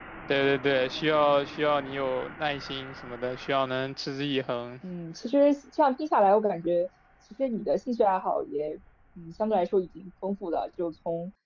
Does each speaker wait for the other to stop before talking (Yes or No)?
Yes